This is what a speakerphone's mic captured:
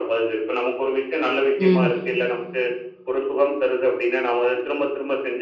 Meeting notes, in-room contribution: present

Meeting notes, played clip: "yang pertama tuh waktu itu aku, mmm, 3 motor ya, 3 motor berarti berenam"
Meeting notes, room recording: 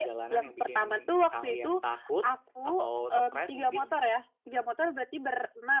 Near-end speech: present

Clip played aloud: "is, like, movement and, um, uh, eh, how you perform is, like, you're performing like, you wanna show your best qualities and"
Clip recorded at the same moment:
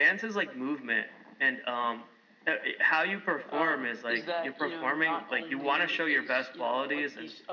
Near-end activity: present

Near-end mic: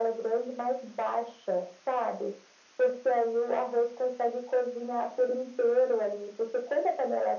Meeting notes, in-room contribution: none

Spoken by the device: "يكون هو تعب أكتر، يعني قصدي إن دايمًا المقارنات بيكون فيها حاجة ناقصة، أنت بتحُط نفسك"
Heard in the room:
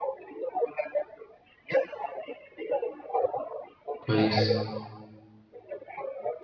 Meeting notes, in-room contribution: present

